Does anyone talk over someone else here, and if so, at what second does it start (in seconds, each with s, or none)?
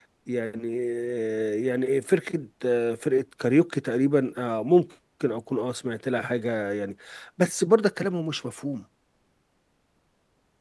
none